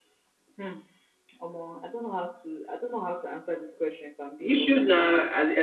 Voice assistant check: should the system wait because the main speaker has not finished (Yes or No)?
No